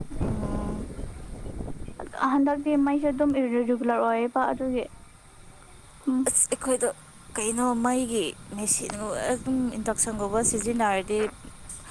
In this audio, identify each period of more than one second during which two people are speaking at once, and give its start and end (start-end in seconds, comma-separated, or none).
none